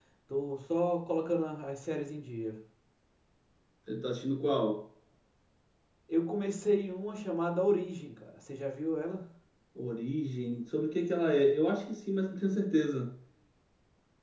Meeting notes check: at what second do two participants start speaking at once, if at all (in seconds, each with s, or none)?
none